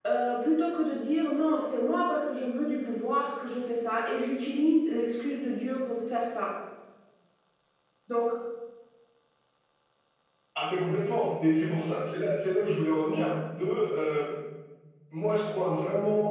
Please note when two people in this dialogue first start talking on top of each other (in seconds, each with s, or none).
none